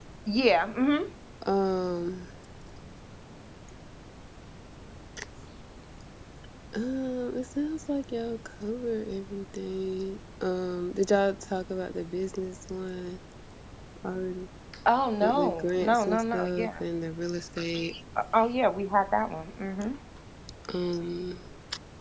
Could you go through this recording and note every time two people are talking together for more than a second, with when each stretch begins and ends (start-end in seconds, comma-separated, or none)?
15.2-16.8